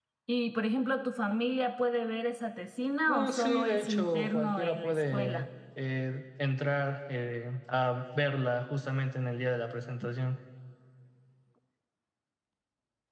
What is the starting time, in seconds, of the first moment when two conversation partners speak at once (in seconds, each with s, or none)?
3.1 s